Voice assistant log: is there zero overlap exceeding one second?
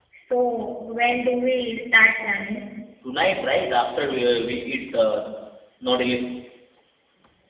Yes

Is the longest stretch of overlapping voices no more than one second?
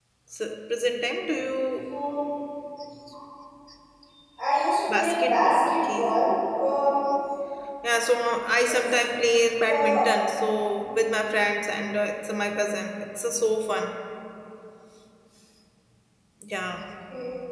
No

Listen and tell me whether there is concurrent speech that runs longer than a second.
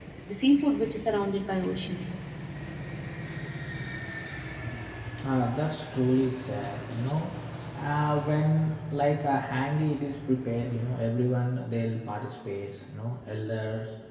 No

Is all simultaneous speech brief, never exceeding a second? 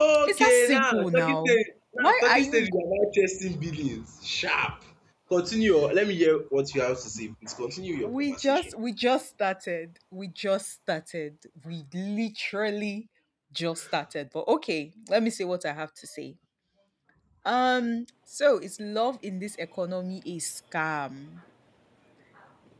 No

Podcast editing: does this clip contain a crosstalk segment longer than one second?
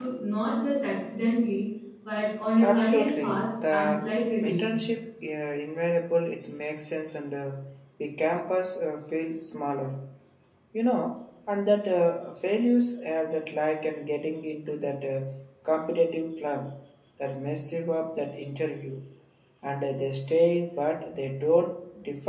Yes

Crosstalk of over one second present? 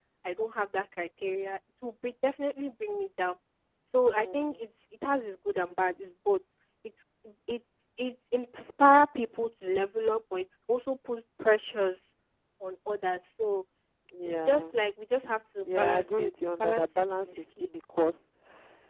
Yes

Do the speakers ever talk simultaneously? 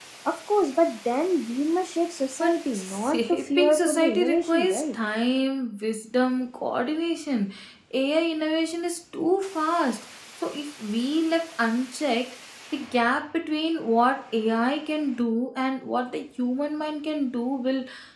Yes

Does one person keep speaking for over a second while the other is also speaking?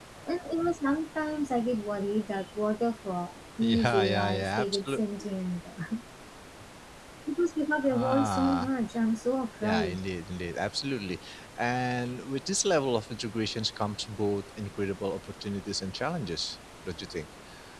Yes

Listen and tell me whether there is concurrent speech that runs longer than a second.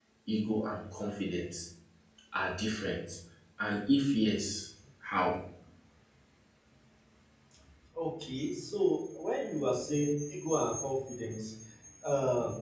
No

